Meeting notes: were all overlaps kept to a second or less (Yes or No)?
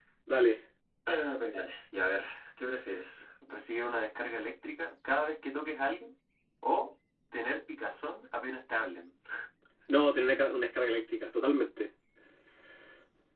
Yes